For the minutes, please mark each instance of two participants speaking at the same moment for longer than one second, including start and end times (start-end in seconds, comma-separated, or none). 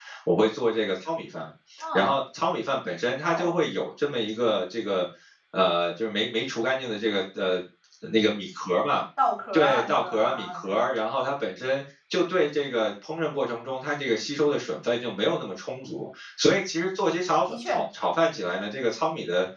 9.5-10.8